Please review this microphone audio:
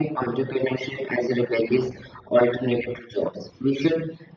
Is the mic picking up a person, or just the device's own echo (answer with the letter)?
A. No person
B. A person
A